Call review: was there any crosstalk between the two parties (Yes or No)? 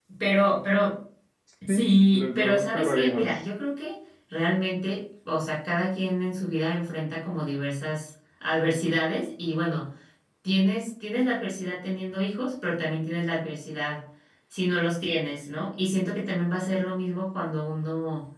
Yes